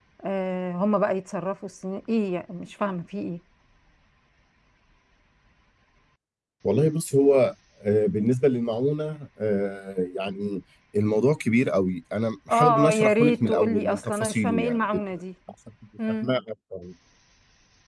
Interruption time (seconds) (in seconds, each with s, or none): 12.5 s